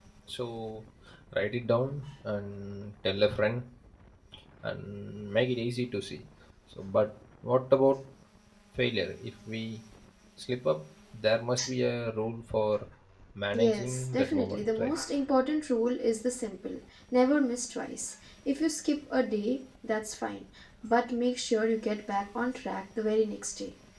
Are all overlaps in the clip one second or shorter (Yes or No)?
No